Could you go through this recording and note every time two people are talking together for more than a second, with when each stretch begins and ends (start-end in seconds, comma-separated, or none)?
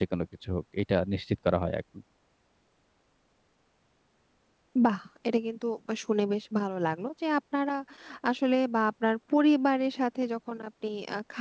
none